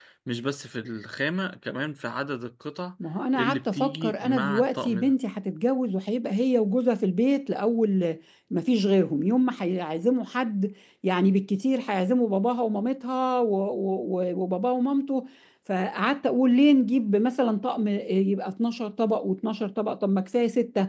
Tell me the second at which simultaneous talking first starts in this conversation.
3.4 s

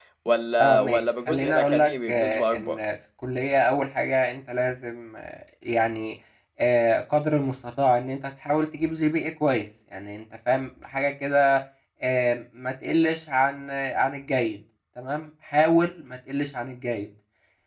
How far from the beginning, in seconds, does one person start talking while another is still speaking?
0.6 s

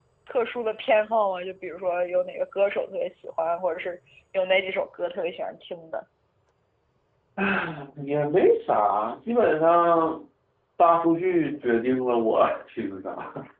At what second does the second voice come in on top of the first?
none

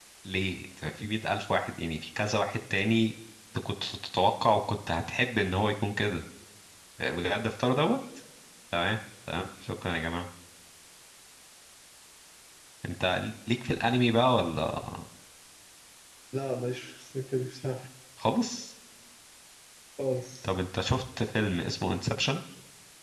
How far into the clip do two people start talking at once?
none

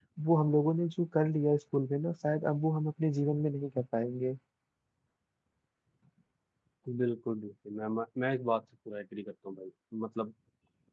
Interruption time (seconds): none

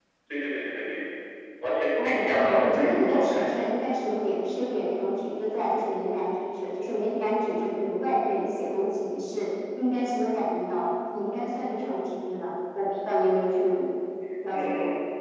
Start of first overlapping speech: 1.9 s

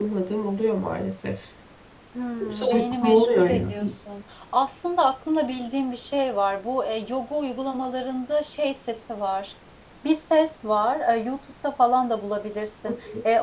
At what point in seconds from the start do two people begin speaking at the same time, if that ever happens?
2.4 s

